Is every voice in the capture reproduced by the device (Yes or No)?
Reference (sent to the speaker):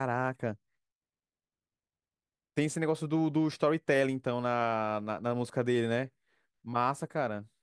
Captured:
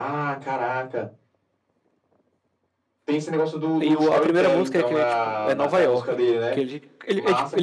No